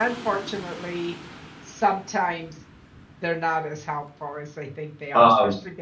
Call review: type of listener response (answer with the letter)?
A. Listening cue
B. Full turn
A